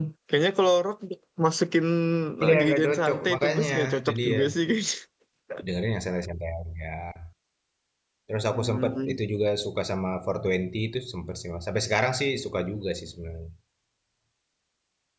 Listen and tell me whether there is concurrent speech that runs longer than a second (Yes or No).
Yes